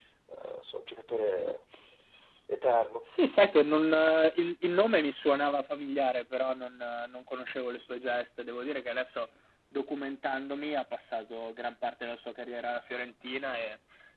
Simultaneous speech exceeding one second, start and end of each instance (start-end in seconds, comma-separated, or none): none